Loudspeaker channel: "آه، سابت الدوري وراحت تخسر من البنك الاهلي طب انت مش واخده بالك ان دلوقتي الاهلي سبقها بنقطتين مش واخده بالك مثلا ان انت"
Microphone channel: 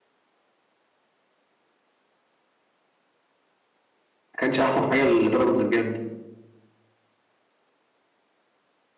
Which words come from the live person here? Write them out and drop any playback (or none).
كانش احسن حاجه لبيراميدز بجد